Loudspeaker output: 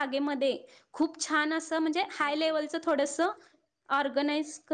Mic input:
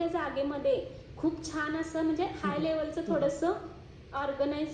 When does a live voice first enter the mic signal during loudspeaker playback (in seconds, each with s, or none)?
2.4 s